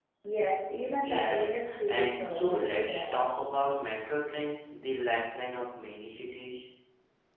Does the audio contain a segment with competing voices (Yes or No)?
Yes